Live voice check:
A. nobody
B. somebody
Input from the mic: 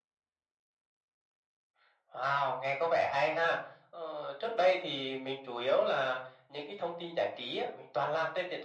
A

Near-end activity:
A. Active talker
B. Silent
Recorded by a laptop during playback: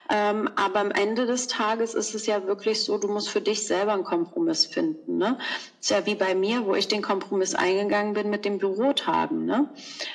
B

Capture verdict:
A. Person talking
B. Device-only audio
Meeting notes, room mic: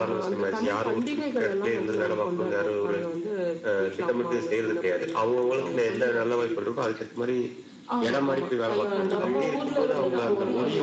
A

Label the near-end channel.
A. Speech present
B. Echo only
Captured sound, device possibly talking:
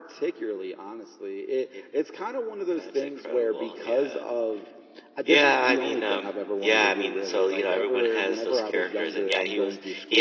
B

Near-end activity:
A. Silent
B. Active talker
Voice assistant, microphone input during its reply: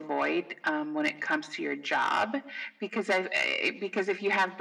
A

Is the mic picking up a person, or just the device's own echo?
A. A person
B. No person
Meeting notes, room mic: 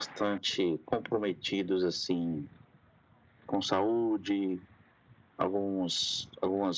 B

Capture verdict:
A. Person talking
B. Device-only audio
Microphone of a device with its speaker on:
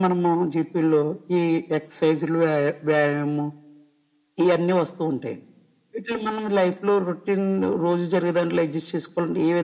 B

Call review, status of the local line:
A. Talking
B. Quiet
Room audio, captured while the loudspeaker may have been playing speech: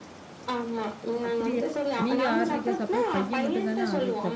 A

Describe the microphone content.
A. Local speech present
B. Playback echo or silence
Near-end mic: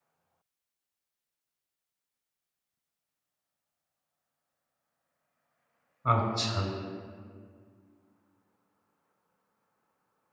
A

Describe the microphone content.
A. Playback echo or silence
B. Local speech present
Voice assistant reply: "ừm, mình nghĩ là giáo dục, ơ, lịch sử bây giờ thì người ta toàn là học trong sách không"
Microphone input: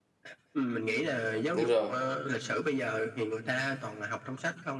B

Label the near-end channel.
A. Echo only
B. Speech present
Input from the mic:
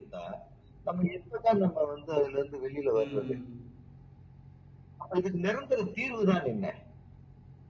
B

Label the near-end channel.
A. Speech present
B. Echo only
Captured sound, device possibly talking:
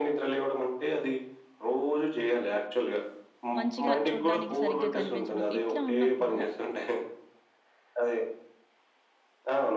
A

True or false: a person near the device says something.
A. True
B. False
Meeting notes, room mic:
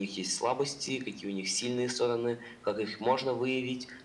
B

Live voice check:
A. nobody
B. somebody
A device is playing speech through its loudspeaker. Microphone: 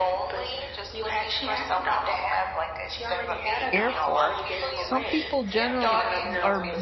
B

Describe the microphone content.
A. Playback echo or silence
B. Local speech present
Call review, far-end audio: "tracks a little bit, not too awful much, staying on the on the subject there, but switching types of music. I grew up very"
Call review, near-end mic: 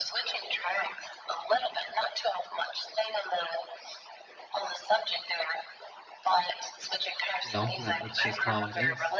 B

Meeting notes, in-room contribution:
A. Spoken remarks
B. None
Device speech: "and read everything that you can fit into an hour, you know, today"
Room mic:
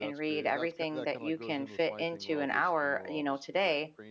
A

